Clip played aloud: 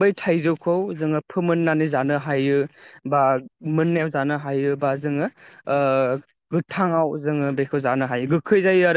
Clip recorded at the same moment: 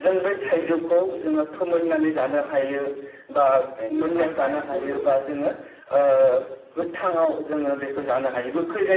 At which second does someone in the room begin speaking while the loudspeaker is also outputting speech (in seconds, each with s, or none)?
3.8 s